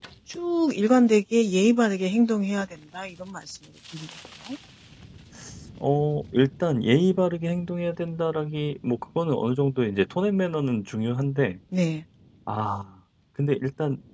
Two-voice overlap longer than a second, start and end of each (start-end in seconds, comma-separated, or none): none